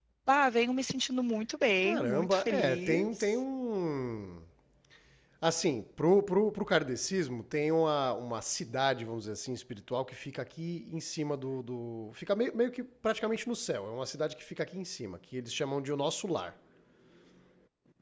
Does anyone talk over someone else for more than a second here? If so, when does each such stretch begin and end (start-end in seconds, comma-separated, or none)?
1.8-3.3